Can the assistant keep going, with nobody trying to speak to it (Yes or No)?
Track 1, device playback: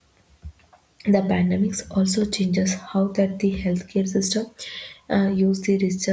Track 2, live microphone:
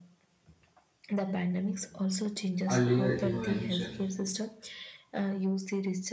No